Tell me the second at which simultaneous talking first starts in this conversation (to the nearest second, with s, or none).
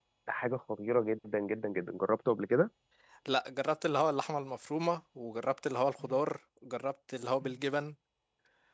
none